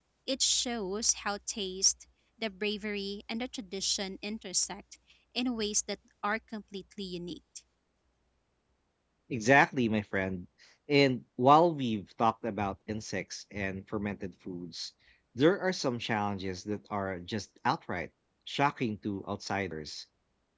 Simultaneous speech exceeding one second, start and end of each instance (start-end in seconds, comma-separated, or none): none